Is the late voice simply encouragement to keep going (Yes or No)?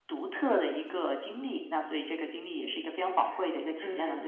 No